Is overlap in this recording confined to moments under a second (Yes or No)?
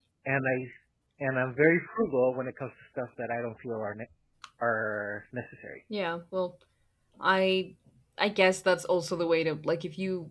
Yes